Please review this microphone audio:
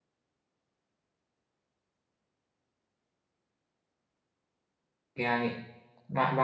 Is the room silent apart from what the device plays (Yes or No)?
No